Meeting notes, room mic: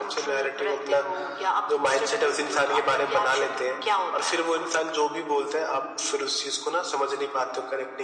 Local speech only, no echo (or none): none